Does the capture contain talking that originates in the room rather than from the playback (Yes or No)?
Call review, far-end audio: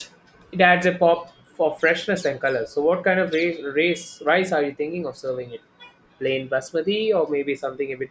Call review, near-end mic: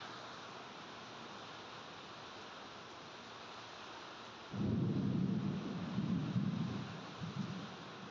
No